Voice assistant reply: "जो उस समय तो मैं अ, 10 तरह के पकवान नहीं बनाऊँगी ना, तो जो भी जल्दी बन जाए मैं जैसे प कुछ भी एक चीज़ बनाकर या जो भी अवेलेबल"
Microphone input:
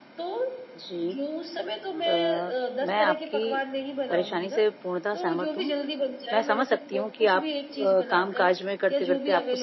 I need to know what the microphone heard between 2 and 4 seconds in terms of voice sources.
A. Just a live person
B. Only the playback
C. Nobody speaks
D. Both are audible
D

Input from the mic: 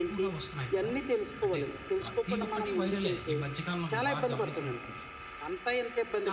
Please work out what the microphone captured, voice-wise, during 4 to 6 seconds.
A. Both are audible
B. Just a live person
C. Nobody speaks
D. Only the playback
A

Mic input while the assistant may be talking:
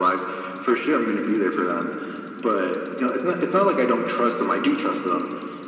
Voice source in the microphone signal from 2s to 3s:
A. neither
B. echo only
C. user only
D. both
B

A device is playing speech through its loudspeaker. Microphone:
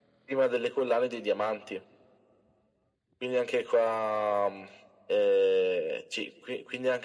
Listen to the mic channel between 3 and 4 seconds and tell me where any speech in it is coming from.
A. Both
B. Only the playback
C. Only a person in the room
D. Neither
B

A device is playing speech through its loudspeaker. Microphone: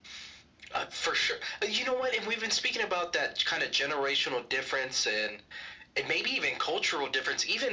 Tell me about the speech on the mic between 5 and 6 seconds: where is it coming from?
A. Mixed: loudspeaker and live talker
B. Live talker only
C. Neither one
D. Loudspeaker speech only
D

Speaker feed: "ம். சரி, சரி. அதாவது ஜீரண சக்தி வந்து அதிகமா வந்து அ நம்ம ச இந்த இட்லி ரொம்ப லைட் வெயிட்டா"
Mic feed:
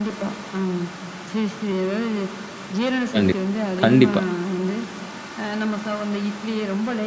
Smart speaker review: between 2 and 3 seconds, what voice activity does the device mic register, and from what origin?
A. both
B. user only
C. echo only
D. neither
C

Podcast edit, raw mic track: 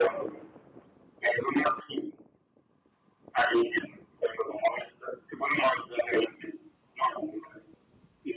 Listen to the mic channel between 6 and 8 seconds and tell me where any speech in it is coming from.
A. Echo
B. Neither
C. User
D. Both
A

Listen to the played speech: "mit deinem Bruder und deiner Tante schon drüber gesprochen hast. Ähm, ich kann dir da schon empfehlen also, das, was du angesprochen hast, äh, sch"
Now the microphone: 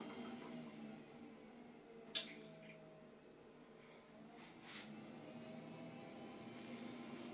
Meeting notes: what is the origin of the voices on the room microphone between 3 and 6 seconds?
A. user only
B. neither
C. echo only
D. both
B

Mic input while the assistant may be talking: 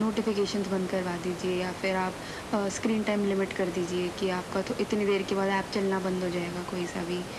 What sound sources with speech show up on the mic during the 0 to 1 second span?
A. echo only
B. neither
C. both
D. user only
A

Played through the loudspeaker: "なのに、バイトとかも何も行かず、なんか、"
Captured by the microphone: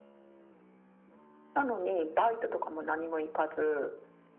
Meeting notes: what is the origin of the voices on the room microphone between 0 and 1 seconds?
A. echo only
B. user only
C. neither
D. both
C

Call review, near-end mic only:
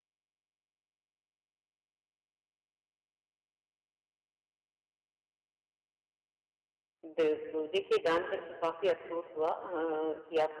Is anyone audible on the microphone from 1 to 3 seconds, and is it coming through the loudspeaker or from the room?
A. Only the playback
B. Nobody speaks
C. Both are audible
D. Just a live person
B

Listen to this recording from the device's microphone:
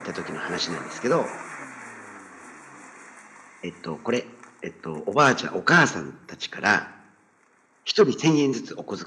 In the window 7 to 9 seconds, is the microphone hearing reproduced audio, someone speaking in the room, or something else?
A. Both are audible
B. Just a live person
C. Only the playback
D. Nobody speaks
C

